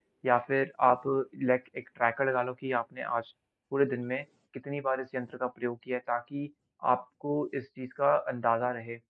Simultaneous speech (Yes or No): No